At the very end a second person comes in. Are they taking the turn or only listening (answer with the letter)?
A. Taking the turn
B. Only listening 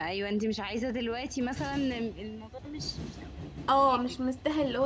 A